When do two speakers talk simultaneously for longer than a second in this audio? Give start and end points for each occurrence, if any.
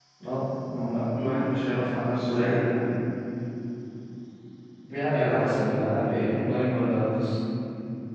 5.1-6.4

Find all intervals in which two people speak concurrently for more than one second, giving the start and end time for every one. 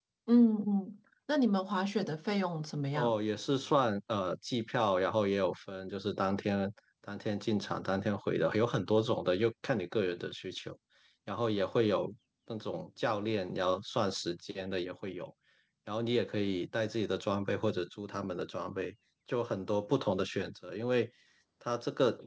none

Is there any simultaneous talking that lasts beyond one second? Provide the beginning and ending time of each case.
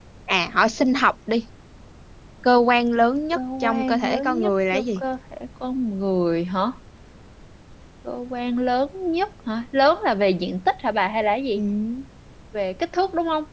3.3-5.0

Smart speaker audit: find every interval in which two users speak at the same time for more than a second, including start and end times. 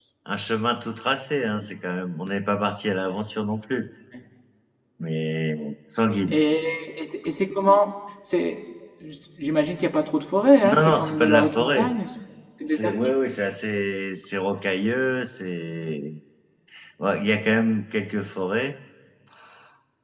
10.6-11.8

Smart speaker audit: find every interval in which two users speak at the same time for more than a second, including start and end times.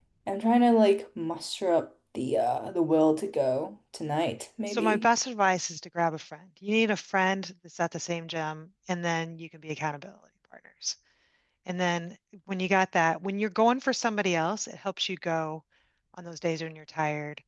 none

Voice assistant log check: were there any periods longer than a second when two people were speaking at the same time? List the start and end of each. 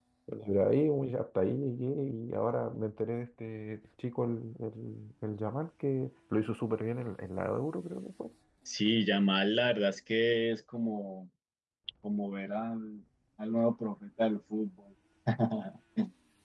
none

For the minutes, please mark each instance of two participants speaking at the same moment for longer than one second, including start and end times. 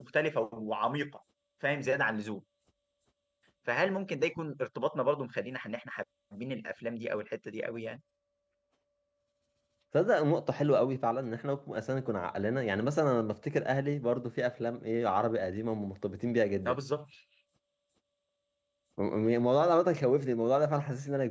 none

